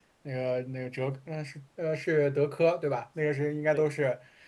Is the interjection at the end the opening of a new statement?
No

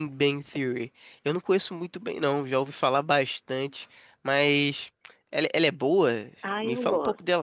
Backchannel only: No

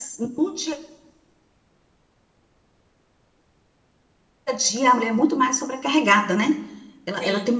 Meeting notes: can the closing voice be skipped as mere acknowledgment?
Yes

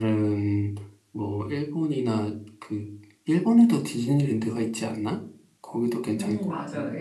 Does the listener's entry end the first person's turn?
Yes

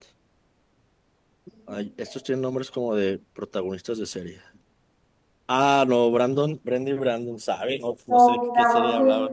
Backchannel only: No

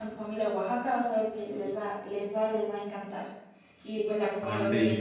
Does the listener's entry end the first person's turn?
No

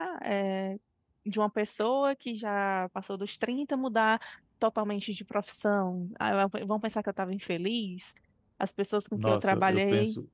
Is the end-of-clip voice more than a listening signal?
Yes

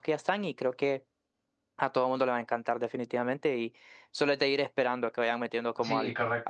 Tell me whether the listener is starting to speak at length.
Yes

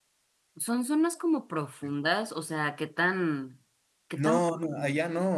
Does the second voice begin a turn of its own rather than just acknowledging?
Yes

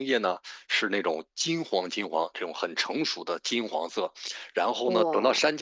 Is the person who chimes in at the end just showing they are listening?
Yes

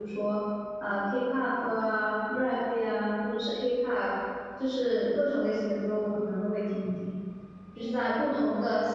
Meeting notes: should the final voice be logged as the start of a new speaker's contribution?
No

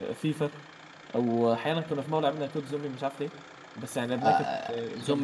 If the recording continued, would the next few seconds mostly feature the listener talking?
Yes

